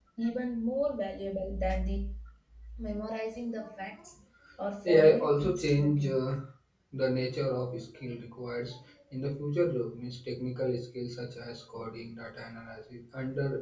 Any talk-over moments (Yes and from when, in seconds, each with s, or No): Yes, from 4.8 s